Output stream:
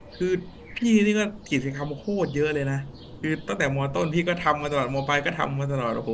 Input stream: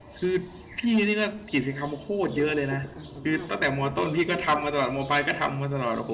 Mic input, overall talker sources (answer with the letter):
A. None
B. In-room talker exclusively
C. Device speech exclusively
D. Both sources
D